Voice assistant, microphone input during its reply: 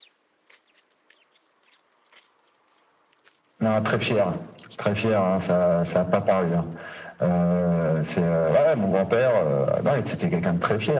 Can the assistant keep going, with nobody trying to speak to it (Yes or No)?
Yes